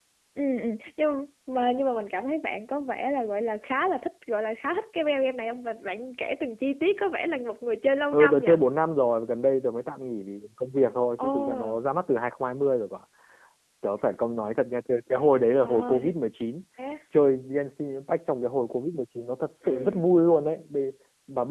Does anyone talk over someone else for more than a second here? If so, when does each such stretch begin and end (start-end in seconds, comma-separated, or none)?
none